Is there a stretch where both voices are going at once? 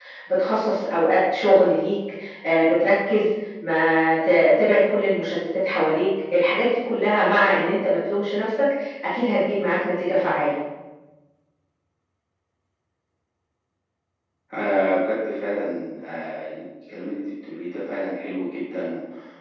No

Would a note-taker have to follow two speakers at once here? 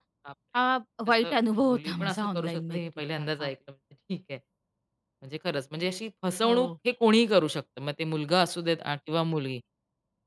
Yes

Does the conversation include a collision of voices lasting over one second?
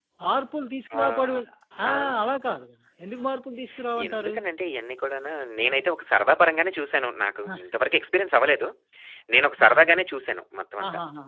No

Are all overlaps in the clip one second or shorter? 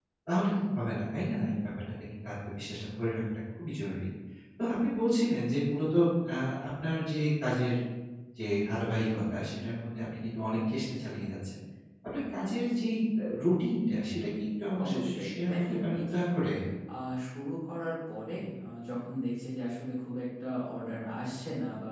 No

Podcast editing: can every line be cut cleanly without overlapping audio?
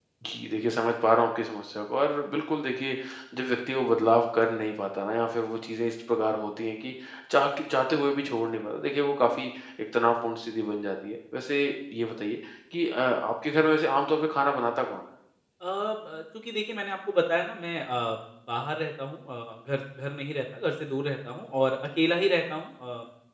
Yes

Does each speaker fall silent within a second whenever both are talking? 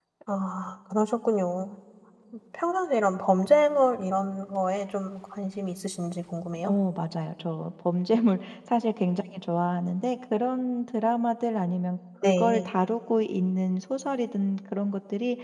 Yes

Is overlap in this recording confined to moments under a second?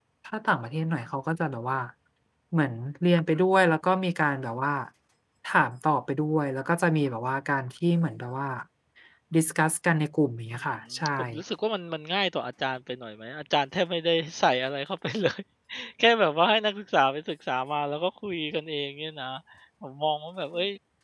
Yes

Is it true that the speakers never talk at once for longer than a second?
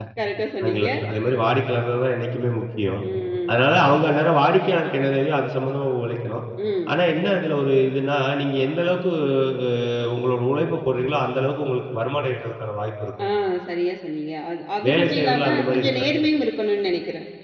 No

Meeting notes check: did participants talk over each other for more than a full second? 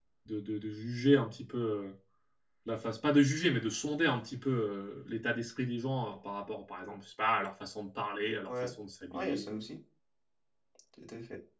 No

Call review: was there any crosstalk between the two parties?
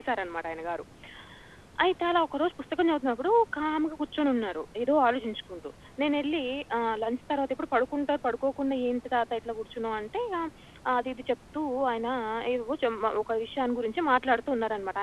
No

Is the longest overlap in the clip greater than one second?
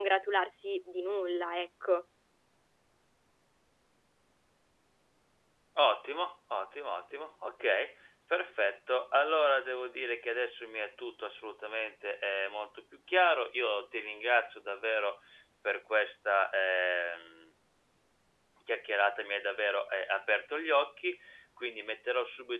No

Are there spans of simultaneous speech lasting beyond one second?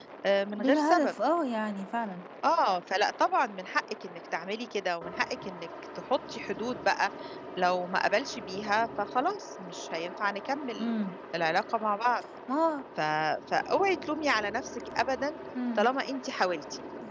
No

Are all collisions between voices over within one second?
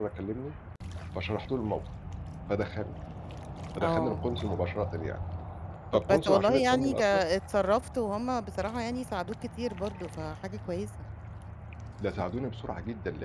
No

